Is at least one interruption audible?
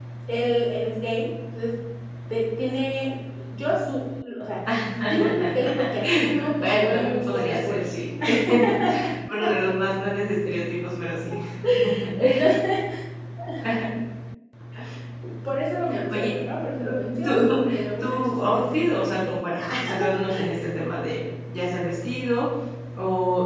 Yes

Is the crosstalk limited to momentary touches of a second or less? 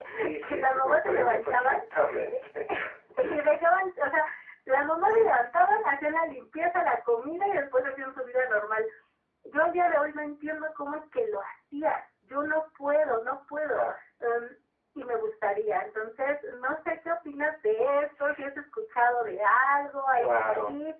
No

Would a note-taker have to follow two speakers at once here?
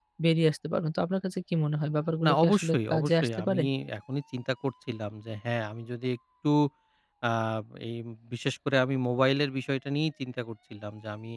Yes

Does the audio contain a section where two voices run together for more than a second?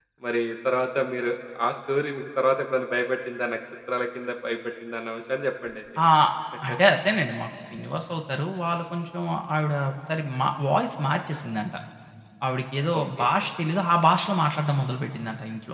No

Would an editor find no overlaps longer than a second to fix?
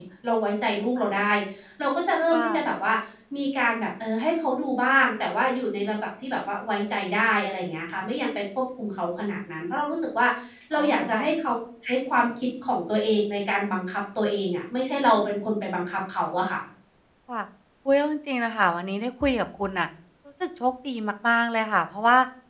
Yes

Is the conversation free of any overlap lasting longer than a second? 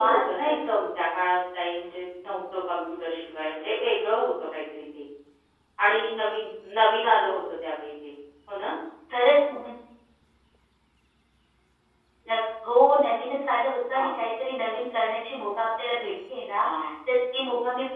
Yes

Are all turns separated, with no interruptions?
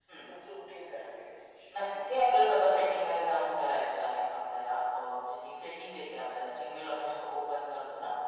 Yes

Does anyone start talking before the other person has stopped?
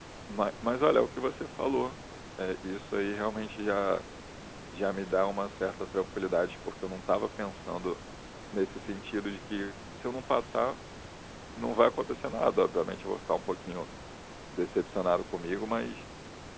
No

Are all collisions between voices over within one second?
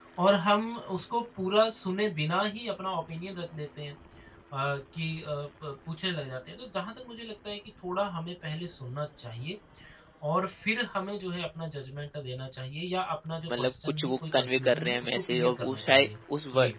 No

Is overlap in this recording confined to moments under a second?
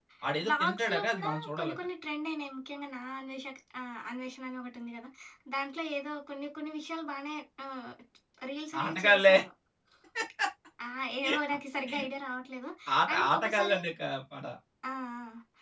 No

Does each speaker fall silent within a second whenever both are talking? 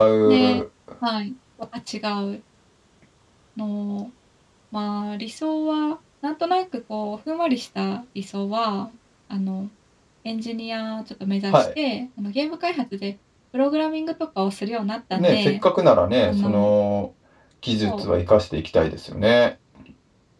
Yes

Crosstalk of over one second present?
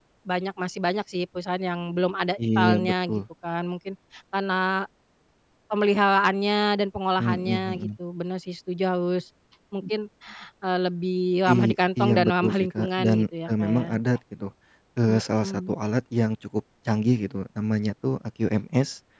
Yes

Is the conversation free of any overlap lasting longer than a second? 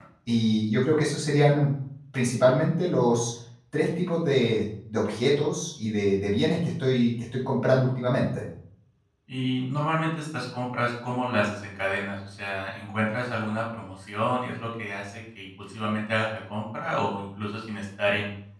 Yes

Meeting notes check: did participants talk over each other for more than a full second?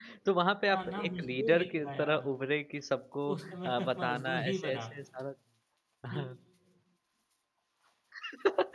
Yes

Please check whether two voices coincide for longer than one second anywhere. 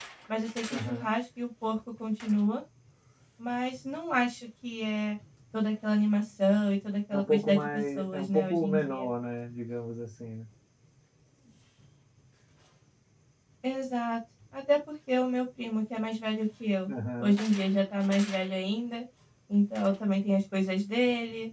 Yes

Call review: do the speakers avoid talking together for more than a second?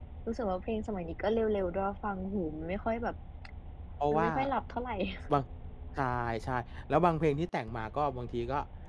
Yes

